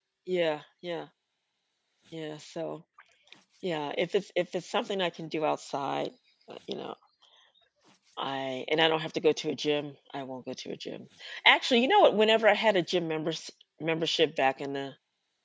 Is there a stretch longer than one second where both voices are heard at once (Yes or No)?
No